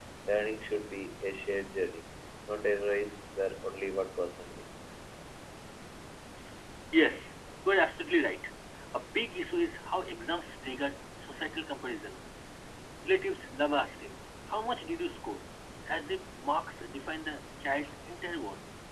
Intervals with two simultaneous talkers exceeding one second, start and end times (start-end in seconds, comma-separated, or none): none